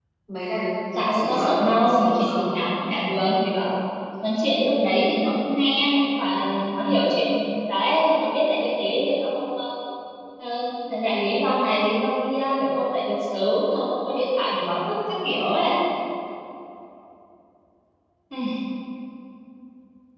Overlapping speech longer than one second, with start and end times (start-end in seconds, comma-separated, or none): 1.1-2.5